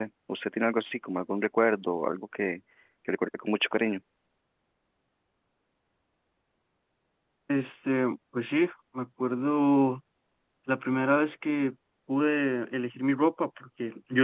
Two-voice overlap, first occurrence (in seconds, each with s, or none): none